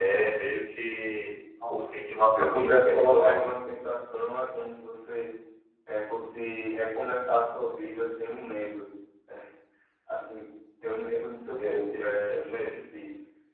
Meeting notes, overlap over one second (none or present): present